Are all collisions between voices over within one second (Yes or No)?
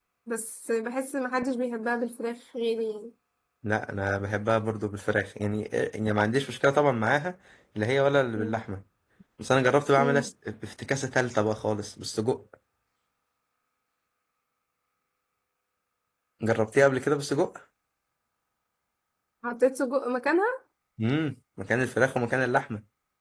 Yes